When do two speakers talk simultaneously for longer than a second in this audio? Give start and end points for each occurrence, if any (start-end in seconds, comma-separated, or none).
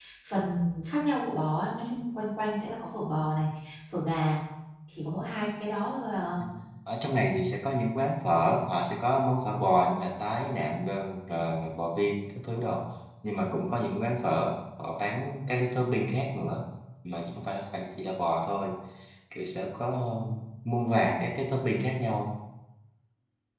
none